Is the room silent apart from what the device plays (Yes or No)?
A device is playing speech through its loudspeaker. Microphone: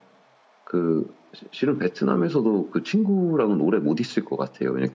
Yes